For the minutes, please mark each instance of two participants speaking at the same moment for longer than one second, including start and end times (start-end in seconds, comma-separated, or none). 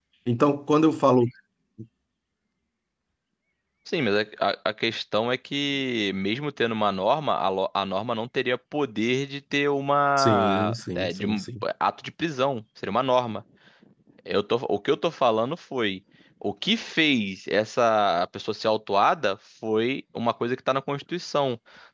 10.2-11.4